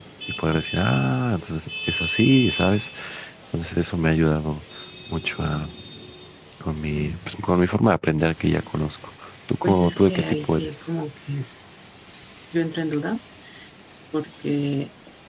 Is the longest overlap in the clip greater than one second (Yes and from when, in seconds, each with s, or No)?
Yes, from 9.6 s